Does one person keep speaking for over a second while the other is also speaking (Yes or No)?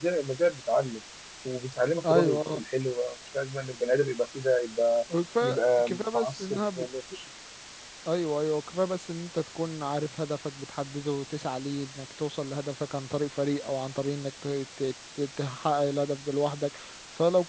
Yes